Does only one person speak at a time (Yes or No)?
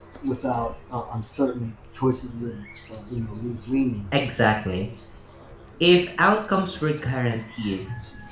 Yes